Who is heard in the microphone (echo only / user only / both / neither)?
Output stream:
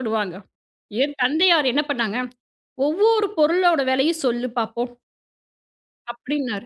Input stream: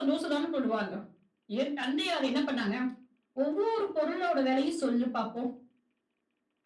echo only